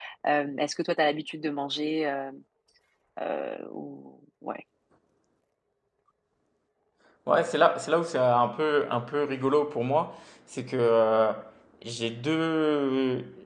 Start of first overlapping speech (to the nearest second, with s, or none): none